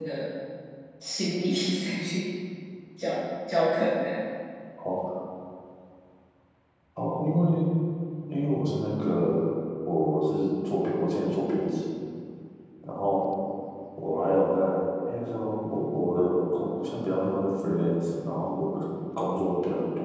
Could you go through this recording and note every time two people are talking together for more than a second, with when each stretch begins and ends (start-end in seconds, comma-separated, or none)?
none